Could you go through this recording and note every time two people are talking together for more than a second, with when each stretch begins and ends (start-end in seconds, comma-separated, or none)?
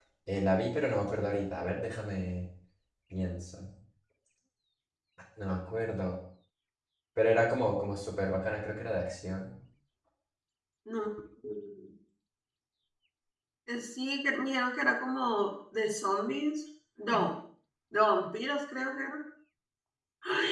none